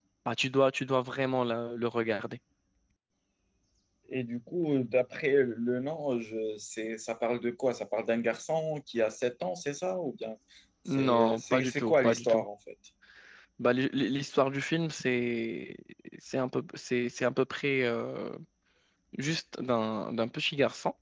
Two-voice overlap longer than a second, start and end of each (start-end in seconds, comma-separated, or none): 10.9-12.4